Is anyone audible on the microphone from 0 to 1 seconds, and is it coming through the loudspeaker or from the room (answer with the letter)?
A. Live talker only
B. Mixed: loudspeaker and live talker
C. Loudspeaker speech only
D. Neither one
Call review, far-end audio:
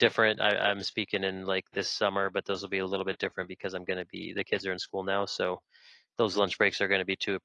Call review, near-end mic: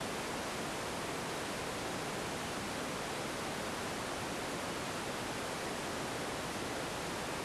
D